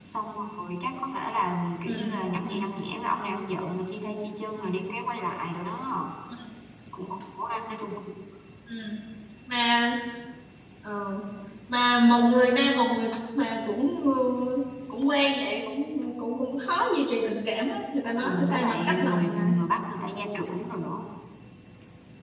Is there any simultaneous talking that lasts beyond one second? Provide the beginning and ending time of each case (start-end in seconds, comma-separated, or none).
18.2-19.5